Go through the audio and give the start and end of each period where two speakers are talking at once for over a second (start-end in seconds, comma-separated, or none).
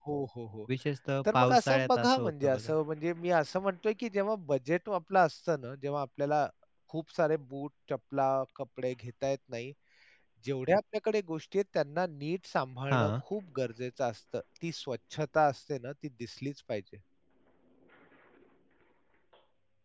1.3-2.7